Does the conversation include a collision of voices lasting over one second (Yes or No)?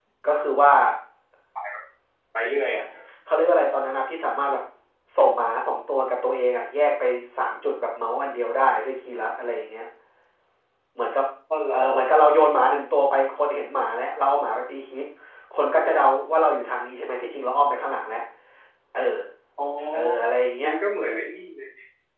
No